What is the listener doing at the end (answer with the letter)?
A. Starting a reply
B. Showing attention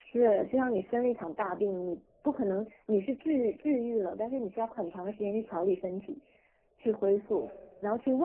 B